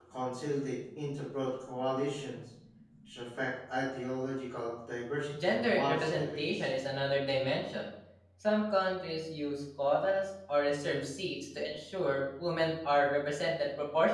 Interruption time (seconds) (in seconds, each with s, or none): 5.3 s